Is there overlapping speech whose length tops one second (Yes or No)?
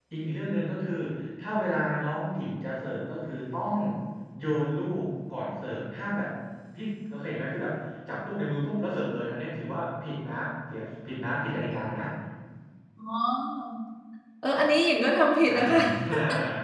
No